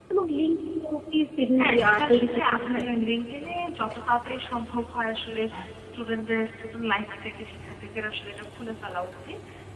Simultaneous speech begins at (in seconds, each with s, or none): 1.5 s